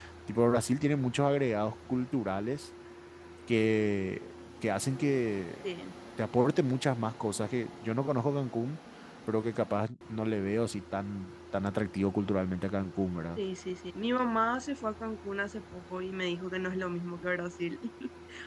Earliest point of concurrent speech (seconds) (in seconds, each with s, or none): none